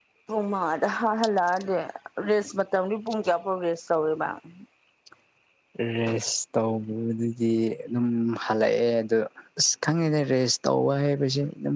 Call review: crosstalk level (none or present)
none